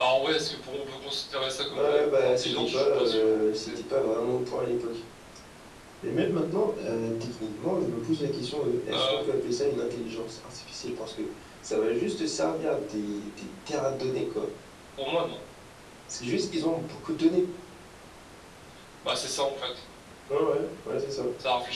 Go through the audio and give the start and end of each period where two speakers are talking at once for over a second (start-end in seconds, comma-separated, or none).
1.8-3.8